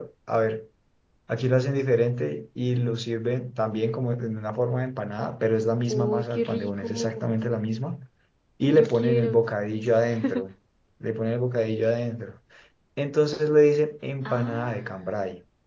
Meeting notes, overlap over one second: present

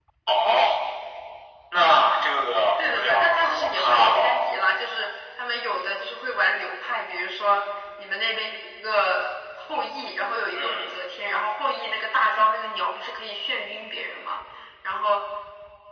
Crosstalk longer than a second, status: present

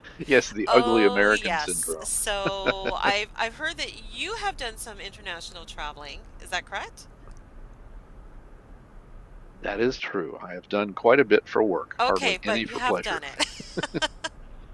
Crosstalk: present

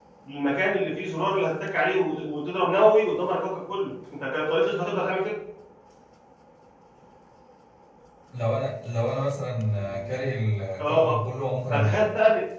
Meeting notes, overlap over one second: none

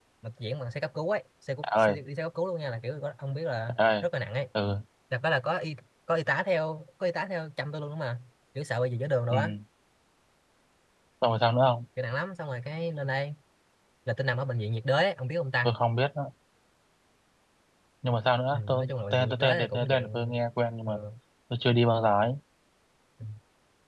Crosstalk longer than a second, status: present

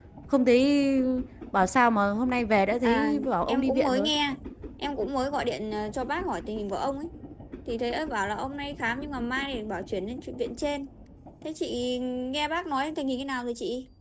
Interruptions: present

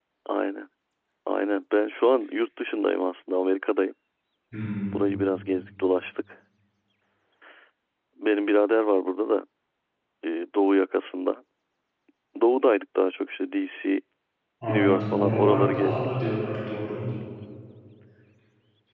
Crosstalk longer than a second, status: present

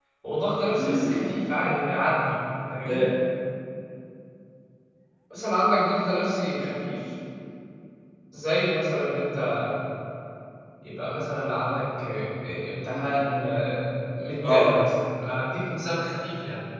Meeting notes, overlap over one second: none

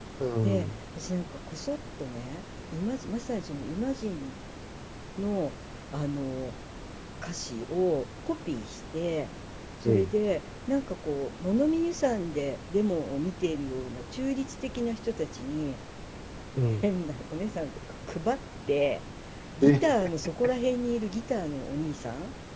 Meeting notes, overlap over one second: none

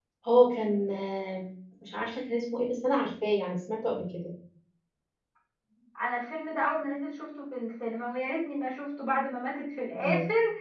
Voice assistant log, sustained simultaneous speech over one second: none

